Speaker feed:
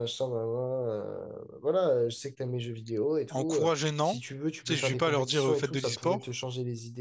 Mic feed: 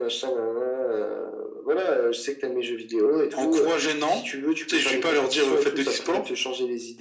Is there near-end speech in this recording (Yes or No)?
No